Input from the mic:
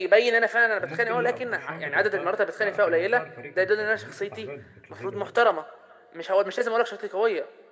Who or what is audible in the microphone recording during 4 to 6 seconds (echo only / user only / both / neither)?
both